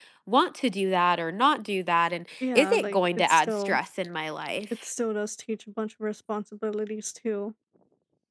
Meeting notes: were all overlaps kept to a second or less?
No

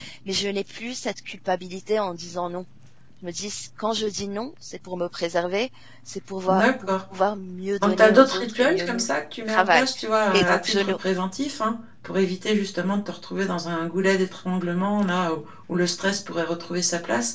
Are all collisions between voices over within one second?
No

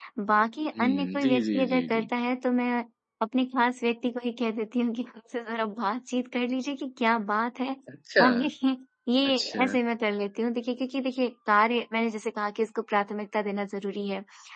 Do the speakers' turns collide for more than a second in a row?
Yes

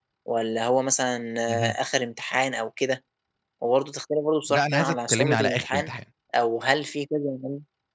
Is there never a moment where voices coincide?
No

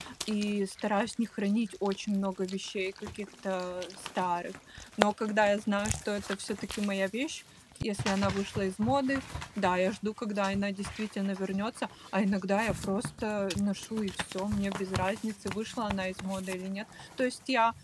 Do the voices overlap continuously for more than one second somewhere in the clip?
No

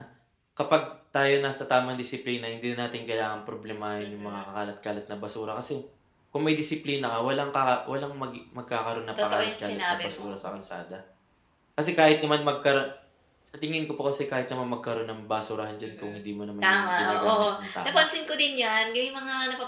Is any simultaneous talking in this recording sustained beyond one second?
Yes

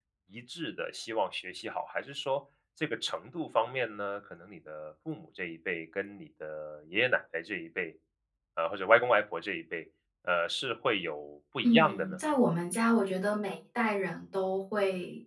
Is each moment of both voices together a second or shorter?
Yes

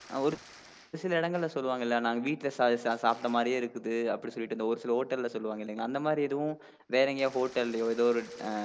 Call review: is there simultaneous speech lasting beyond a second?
No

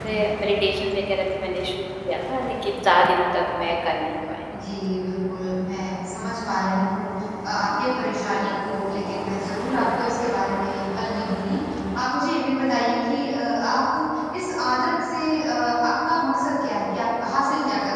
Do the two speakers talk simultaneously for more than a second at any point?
No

